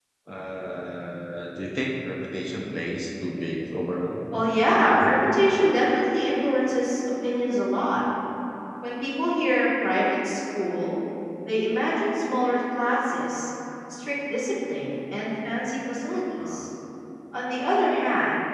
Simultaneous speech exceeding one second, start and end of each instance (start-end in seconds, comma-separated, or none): none